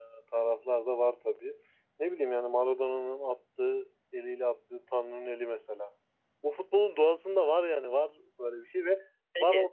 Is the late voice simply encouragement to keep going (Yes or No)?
Yes